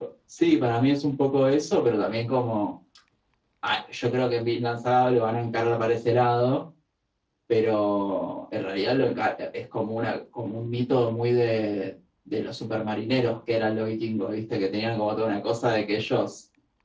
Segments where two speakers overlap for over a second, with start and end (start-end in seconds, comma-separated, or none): none